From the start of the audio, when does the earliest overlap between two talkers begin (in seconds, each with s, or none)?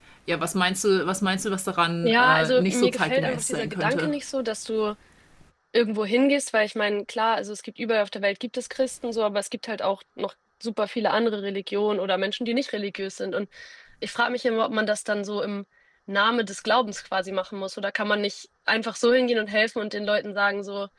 2.0 s